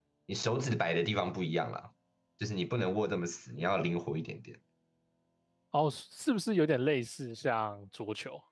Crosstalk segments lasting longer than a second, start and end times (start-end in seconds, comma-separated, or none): none